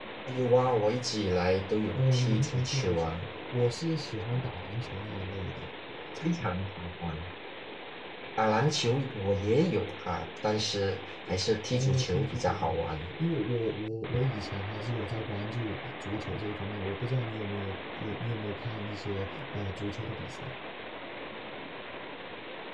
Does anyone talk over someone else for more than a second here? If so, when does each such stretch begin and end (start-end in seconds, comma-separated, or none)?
1.9-3.1, 11.7-13.1